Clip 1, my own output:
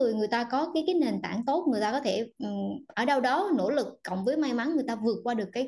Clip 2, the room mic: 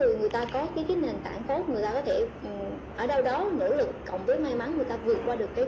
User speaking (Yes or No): No